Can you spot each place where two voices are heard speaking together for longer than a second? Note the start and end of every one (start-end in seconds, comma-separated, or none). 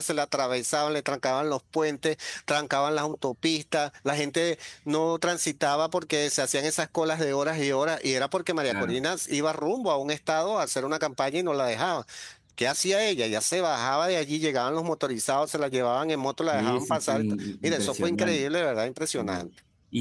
16.5-18.4